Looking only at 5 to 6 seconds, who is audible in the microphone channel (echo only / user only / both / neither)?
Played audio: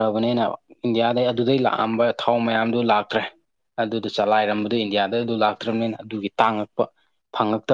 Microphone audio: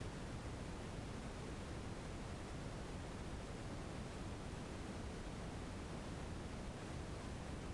neither